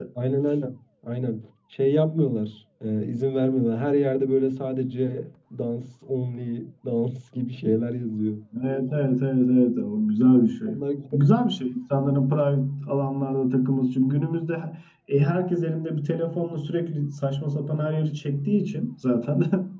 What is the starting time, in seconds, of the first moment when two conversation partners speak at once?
none

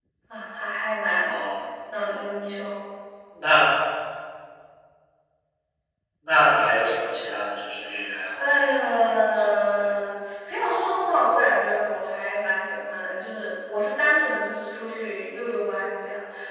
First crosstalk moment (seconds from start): 8 s

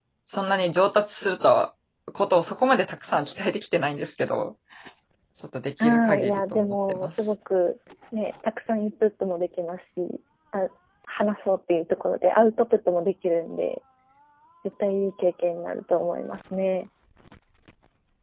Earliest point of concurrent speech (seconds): 6 s

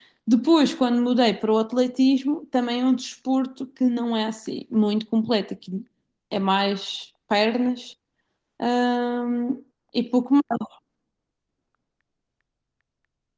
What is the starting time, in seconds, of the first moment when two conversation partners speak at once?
none

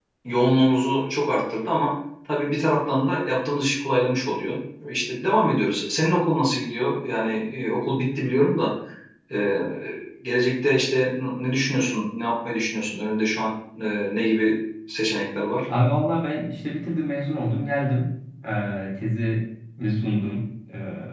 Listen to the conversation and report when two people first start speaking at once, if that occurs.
none

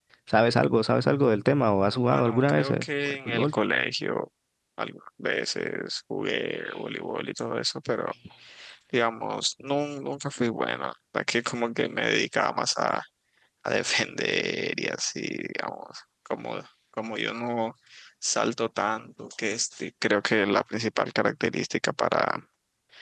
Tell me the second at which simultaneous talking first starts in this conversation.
2 s

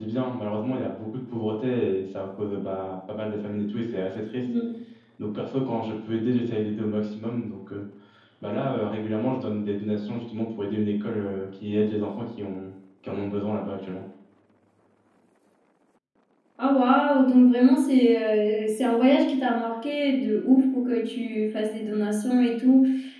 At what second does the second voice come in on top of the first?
none

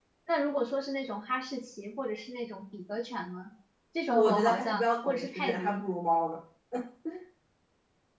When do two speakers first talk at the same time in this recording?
4 s

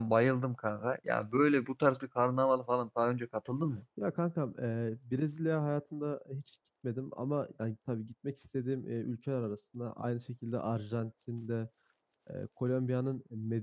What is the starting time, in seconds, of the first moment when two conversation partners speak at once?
none

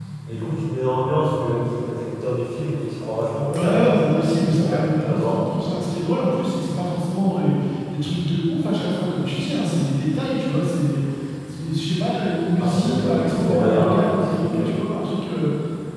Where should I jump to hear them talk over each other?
3 s

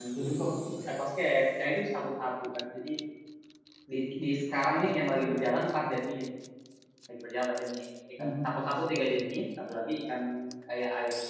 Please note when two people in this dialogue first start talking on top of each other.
5 s

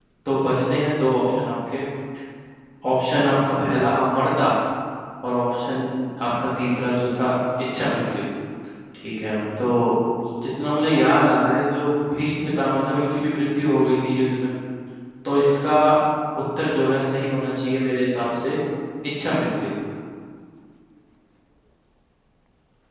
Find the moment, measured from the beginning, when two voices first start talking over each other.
none

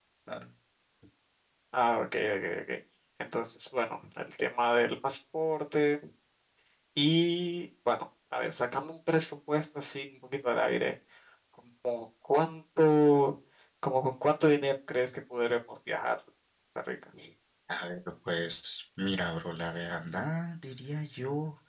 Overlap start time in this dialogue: none

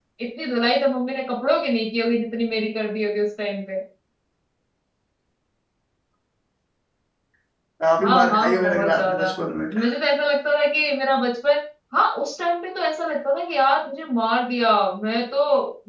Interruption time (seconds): 8 s

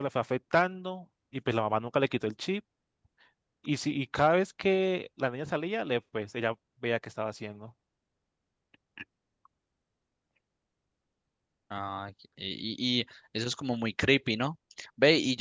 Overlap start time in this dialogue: none

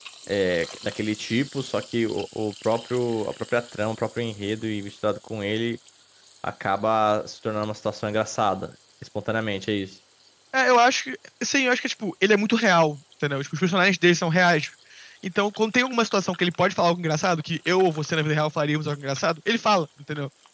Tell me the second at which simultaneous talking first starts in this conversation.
none

